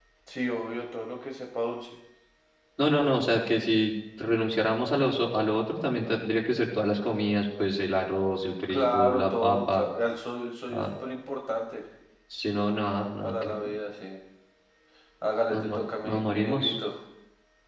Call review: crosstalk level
present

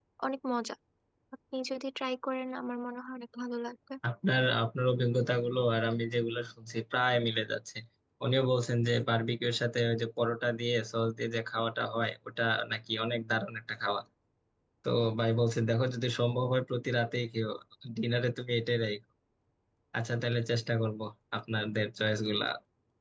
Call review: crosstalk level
none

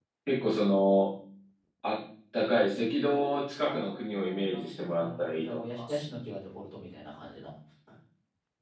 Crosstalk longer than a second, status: present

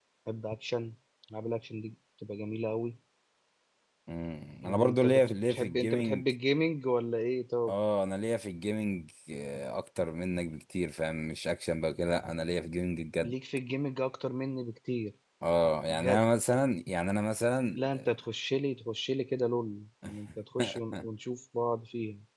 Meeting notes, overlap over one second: present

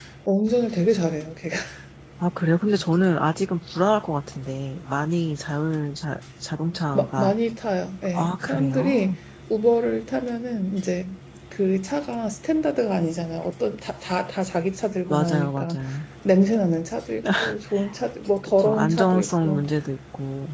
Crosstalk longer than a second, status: present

